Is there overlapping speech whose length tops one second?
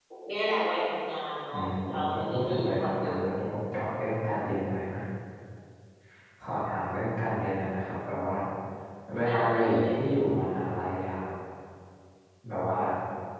Yes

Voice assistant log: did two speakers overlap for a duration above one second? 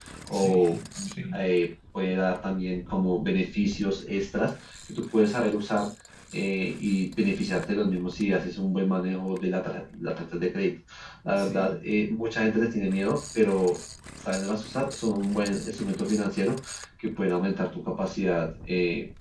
No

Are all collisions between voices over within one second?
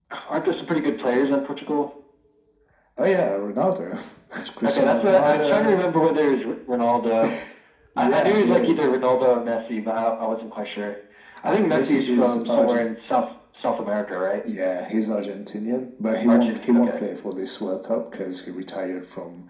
No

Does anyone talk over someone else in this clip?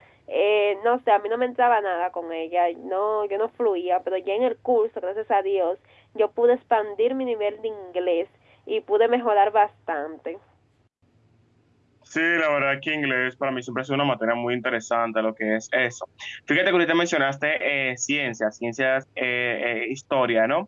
No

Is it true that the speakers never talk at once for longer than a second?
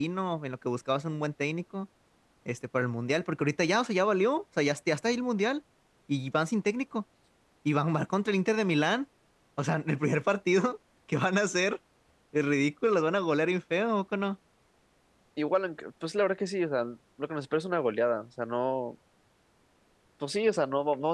Yes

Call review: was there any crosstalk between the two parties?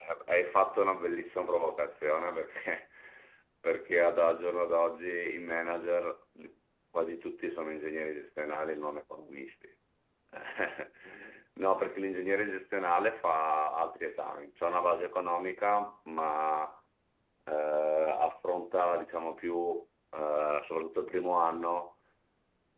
No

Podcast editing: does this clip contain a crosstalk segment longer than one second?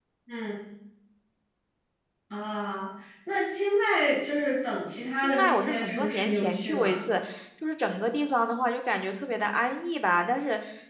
Yes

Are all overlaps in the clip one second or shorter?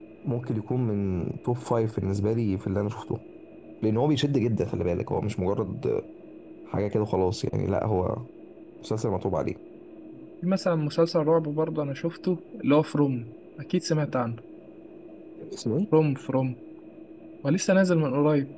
Yes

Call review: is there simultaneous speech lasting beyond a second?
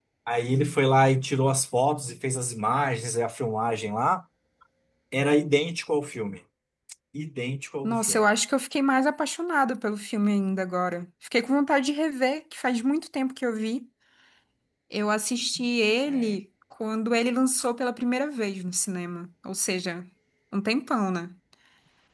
No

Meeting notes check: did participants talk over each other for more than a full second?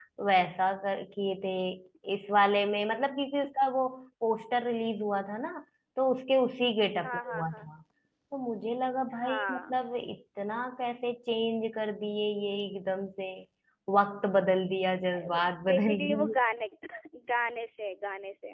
Yes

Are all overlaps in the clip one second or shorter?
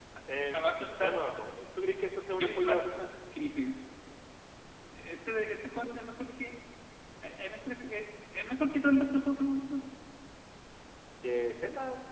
Yes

